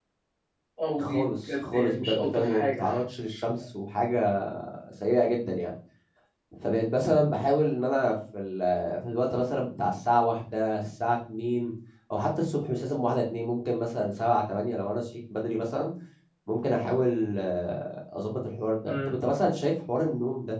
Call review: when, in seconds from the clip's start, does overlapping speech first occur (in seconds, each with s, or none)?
1.0 s